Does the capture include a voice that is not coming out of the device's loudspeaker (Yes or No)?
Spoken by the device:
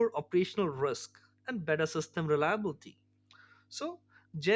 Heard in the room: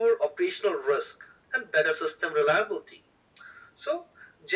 No